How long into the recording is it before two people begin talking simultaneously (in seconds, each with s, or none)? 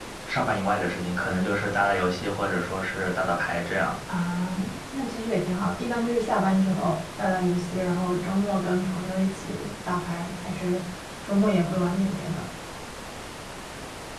none